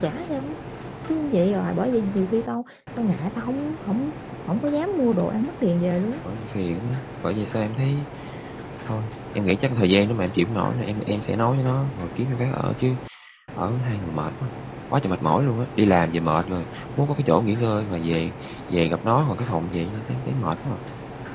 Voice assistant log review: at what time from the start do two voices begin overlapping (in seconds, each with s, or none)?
none